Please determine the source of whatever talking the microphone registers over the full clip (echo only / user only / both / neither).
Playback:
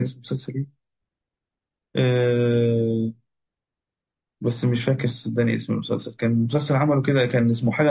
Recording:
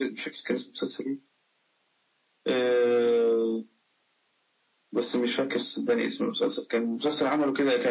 echo only